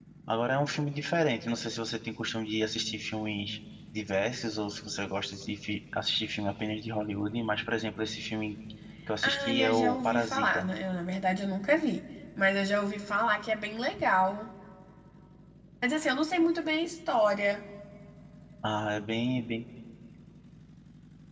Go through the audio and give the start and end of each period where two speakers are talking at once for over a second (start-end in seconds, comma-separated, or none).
9.2-10.7